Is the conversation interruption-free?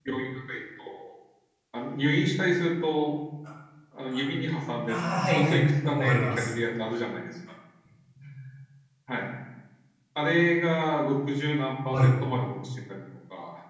No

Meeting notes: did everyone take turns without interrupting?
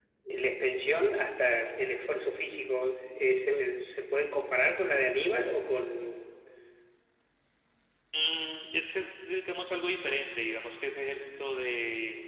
Yes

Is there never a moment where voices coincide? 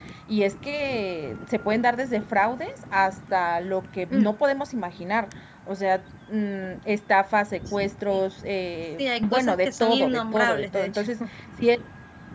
No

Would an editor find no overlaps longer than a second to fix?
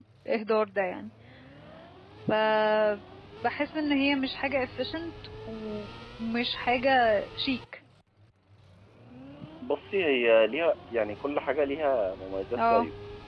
Yes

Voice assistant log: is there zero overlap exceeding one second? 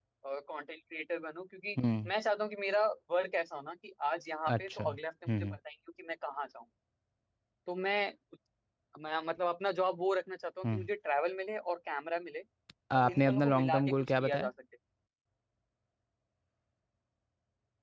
No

